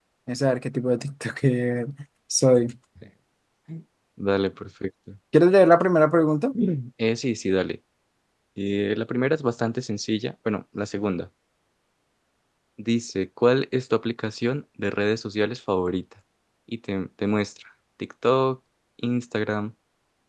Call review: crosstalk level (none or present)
none